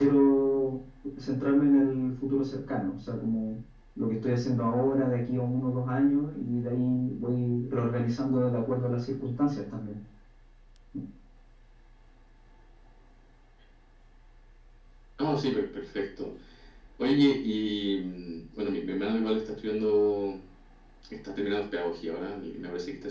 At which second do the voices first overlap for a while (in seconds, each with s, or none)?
none